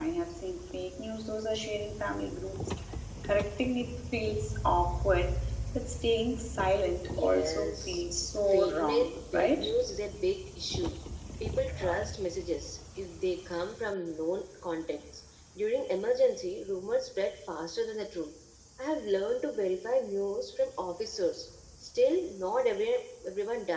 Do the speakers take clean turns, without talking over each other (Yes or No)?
No